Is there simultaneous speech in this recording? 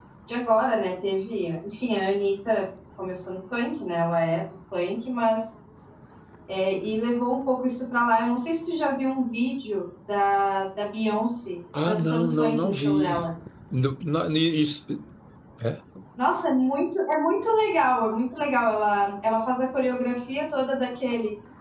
Yes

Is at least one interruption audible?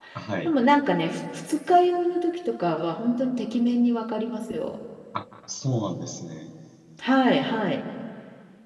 No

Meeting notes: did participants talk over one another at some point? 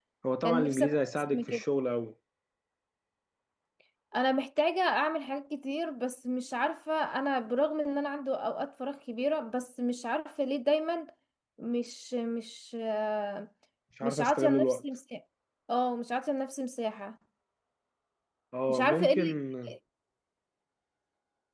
Yes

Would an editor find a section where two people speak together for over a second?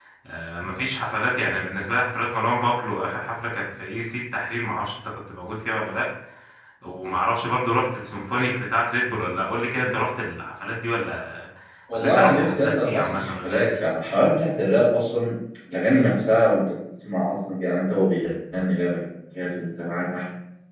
Yes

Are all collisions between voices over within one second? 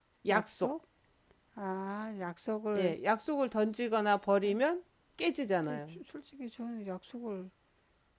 Yes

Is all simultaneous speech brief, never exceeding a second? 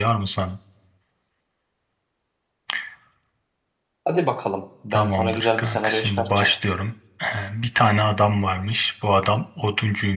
No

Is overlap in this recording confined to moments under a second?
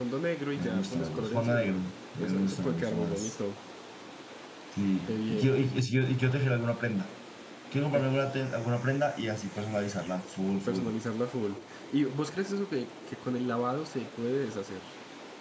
No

